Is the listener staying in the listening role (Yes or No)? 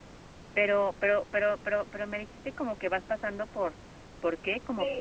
No